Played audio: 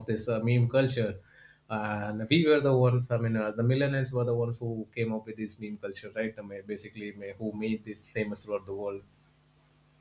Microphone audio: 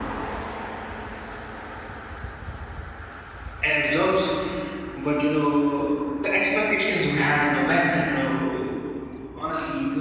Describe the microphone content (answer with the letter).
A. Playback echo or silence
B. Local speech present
B